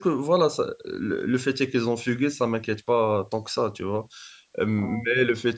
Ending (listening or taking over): listening